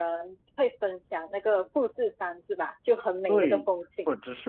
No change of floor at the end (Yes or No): No